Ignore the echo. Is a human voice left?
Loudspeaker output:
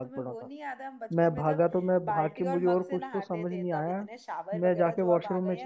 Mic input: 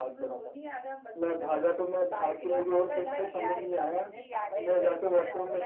Yes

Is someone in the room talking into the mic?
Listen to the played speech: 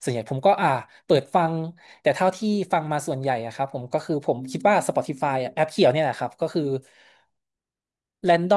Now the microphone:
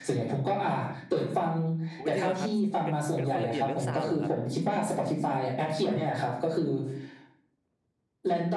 Yes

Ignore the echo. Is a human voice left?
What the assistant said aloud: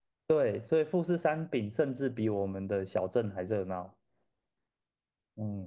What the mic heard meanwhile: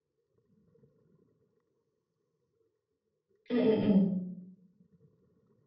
Yes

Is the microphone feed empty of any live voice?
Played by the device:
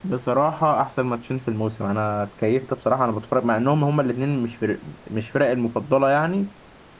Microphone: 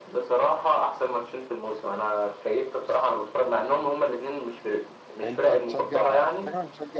No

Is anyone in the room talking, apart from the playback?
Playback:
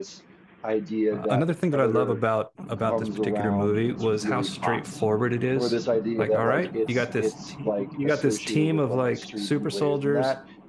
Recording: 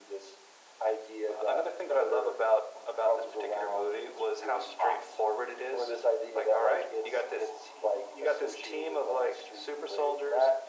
No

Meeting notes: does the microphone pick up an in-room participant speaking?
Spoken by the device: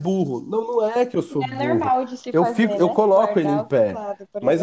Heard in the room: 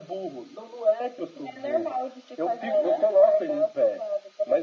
Yes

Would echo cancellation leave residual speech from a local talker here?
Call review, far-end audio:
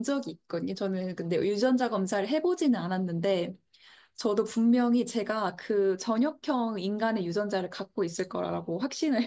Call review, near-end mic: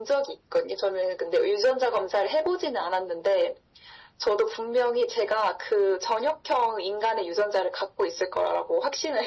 No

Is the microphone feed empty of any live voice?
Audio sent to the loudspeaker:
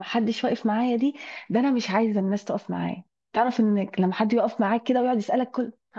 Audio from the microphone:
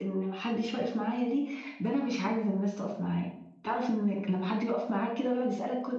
Yes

